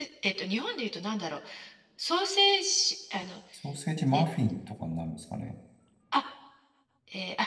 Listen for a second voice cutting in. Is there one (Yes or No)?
No